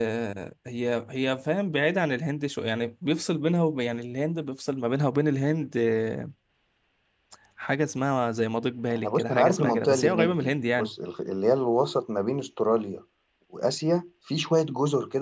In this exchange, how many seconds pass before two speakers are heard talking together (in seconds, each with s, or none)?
8.9 s